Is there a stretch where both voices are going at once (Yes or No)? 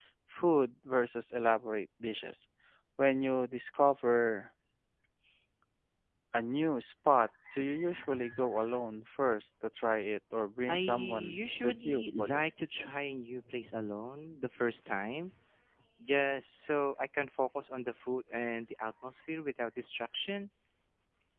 Yes